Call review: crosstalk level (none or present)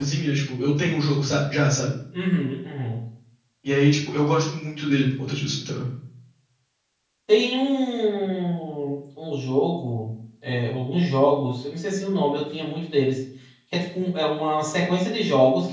none